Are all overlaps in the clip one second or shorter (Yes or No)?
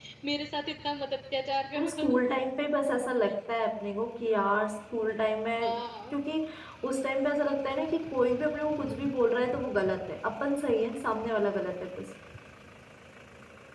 Yes